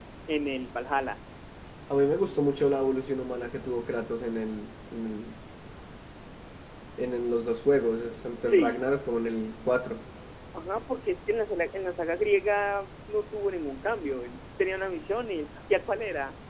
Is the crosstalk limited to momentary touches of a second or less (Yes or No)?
Yes